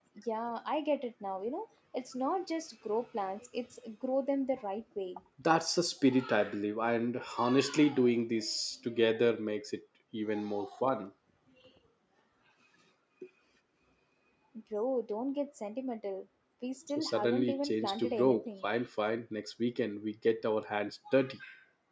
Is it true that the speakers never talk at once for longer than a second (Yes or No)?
No